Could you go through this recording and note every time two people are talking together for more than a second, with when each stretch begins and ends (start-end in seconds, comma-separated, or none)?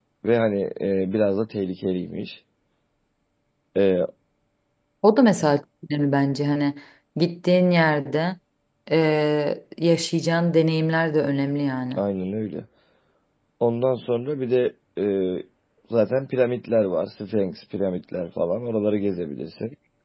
none